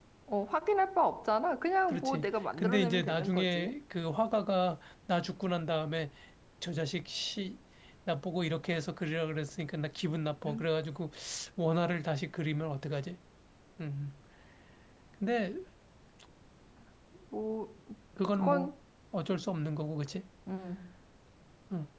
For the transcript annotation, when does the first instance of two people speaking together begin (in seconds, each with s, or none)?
1.9 s